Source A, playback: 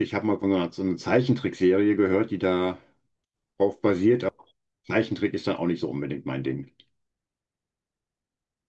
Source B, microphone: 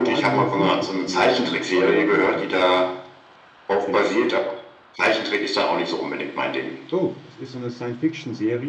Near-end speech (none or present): present